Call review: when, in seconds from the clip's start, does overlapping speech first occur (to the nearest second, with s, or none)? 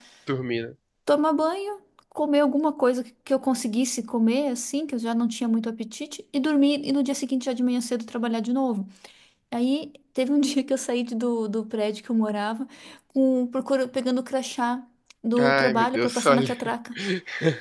15 s